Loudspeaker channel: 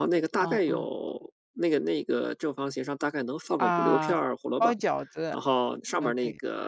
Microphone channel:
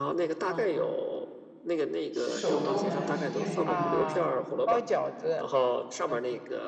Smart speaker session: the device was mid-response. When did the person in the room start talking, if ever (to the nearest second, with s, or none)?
2 s